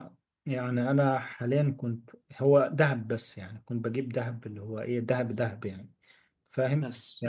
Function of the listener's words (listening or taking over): listening